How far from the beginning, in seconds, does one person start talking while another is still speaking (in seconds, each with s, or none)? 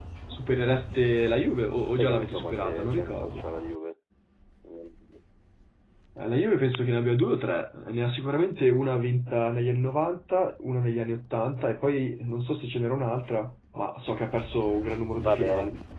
2.0 s